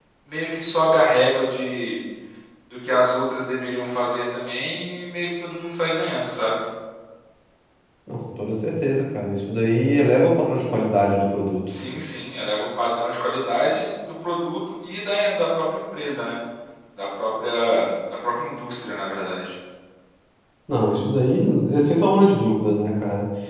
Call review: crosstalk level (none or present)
none